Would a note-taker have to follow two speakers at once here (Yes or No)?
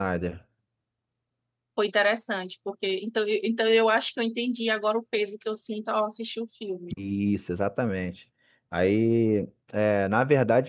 No